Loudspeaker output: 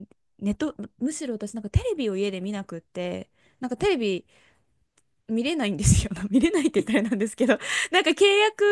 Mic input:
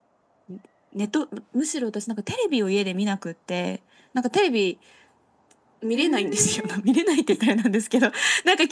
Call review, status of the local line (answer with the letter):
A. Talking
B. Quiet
A